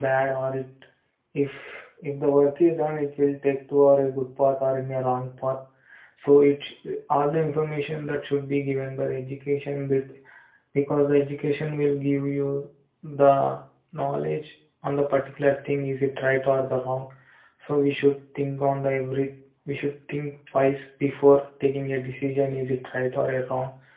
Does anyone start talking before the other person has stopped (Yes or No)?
No